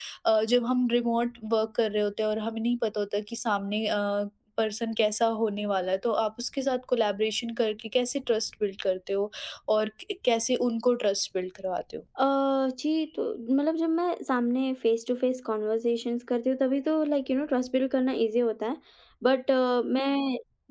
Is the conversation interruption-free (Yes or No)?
Yes